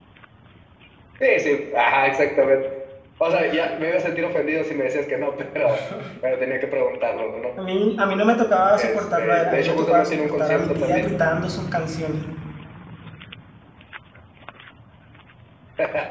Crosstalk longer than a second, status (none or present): present